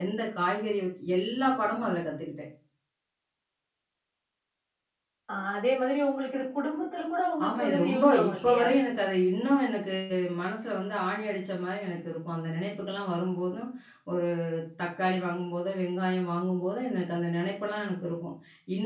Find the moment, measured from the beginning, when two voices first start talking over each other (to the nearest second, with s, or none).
7 s